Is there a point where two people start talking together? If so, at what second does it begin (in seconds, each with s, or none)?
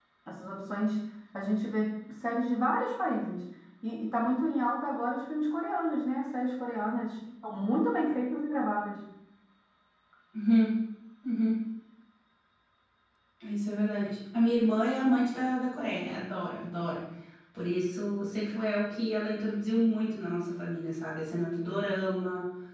none